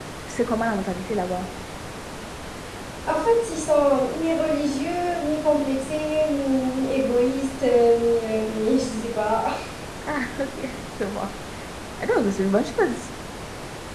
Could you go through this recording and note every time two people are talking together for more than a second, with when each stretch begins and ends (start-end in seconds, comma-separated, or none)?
none